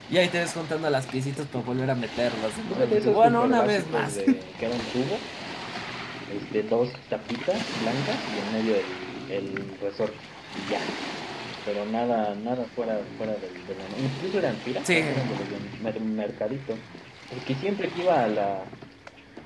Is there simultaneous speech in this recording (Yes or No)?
Yes